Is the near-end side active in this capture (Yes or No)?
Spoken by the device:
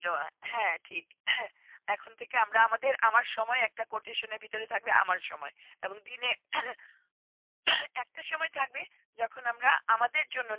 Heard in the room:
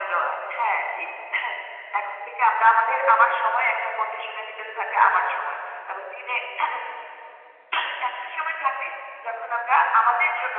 No